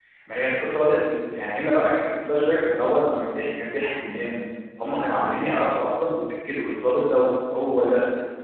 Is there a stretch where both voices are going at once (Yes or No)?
No